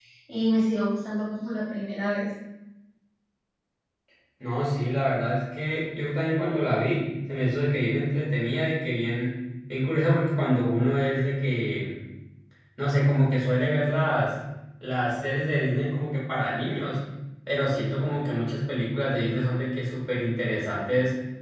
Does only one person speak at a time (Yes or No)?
Yes